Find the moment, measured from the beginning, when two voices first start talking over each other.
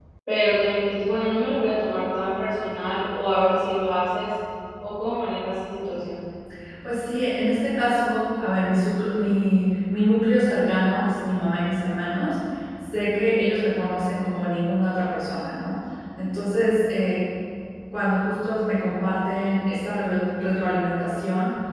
none

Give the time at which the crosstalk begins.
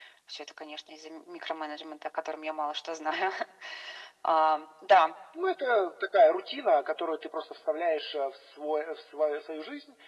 none

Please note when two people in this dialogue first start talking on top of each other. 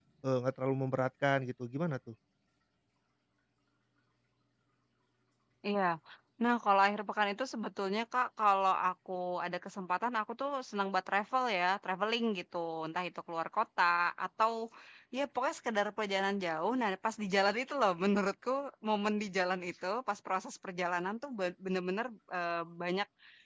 none

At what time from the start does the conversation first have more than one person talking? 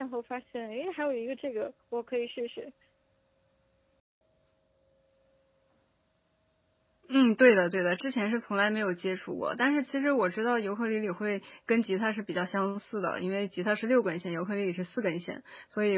none

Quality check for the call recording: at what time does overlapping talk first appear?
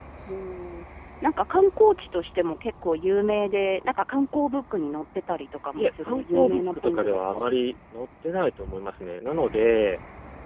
5.8 s

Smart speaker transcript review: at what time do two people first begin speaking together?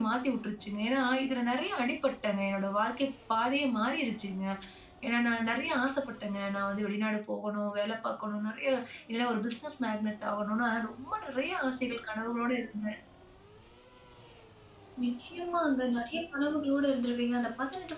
none

